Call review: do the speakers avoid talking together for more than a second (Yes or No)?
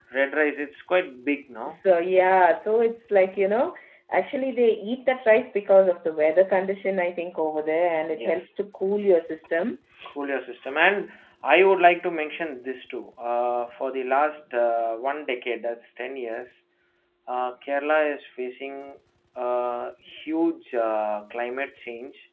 Yes